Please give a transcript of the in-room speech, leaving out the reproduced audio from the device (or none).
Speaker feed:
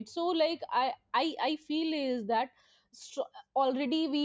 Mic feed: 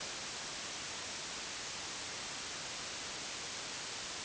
none